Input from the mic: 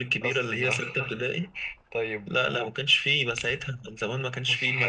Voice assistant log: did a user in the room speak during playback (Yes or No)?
No